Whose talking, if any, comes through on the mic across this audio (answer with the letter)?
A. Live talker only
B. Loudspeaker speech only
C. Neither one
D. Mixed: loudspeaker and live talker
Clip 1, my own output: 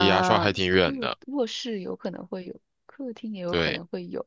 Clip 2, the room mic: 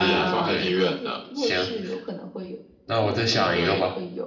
D